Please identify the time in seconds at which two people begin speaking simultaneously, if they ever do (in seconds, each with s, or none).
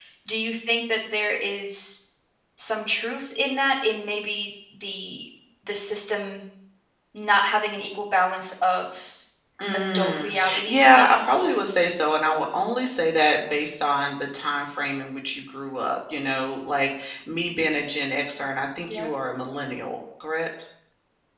9.7 s